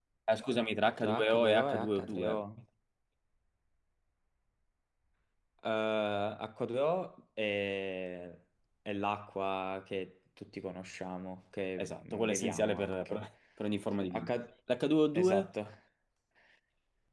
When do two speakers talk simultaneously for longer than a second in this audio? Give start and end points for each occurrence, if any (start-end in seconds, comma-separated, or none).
1.0-2.4, 11.8-13.2